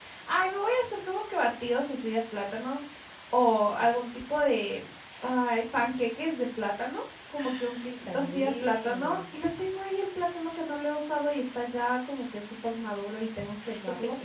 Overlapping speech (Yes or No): Yes